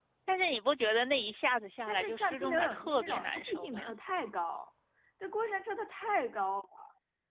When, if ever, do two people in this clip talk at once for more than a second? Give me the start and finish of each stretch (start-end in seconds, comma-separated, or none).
1.9-3.9